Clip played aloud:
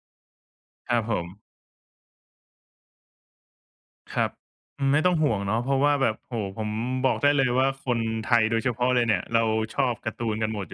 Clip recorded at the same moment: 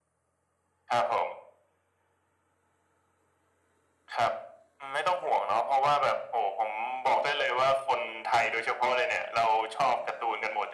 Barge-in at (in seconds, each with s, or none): none